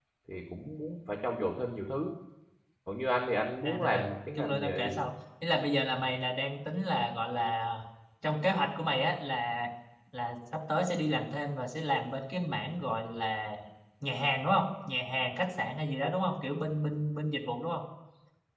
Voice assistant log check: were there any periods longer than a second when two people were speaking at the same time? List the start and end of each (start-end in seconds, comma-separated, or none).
3.6-5.0